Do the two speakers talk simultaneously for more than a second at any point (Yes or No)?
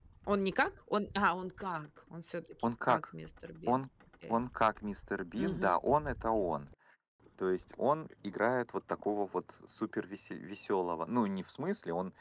No